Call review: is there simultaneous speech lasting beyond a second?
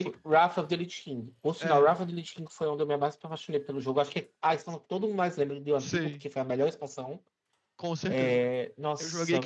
No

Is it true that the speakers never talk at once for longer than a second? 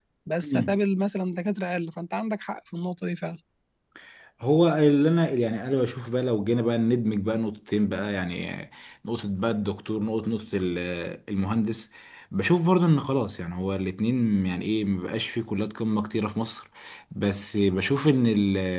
Yes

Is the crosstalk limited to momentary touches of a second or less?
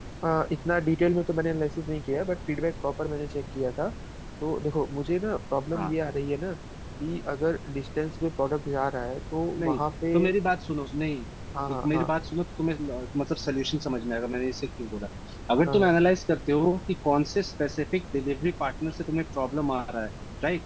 Yes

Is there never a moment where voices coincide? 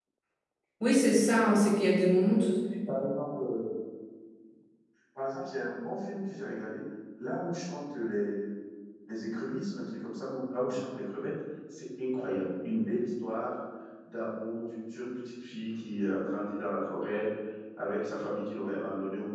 Yes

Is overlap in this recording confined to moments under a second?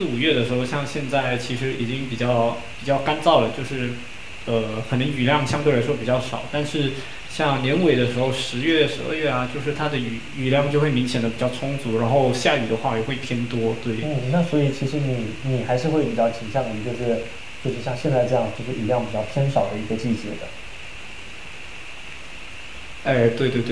Yes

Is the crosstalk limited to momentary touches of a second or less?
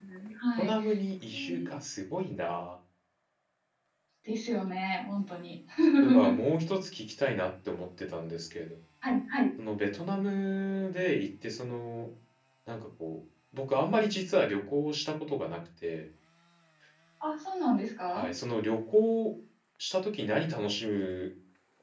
Yes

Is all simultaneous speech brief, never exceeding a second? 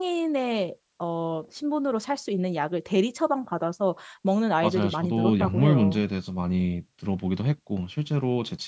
No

